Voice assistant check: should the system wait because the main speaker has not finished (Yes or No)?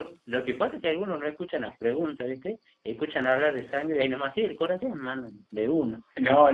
No